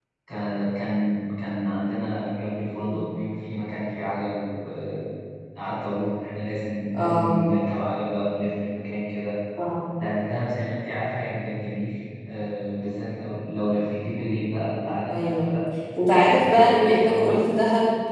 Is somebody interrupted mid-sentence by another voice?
Yes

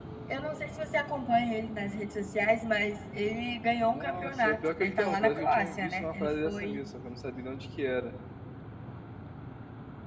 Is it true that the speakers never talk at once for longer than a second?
No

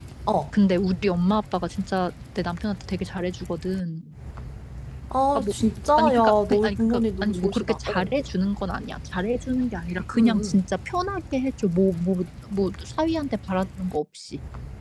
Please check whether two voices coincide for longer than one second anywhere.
Yes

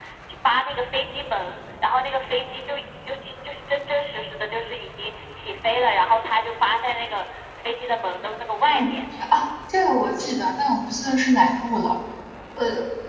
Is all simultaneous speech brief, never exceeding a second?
Yes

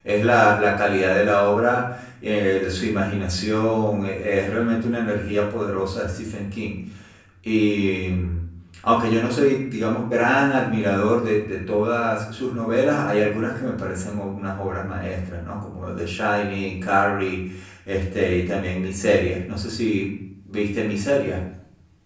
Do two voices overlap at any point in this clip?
No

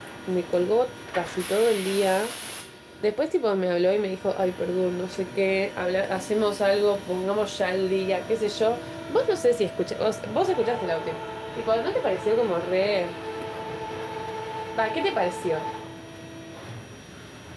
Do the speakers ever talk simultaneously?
No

